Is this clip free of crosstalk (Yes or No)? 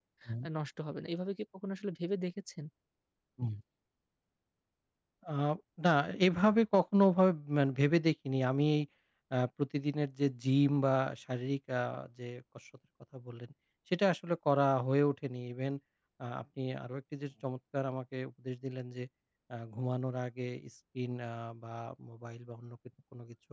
Yes